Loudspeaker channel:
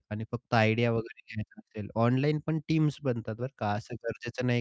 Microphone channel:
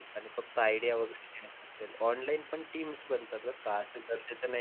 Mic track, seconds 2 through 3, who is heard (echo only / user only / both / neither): echo only